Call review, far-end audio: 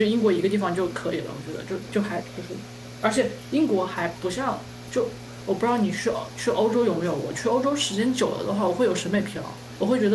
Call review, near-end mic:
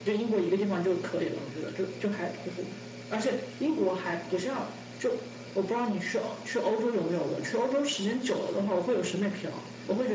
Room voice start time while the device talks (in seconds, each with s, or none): none